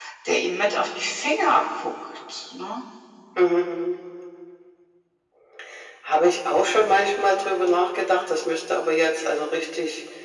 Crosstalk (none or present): none